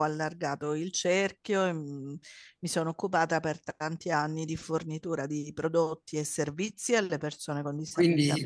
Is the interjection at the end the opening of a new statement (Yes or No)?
Yes